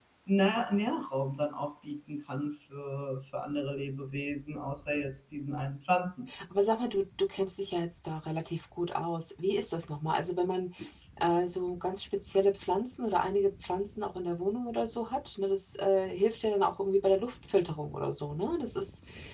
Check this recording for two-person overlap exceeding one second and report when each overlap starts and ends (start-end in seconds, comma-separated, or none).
none